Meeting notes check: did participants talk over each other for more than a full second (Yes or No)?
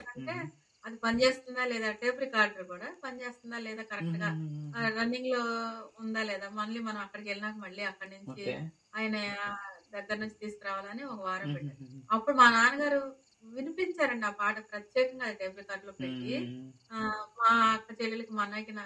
No